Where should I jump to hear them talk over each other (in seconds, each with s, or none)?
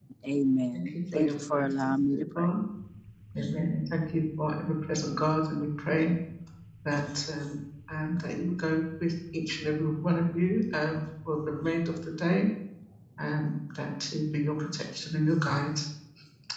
0.7 s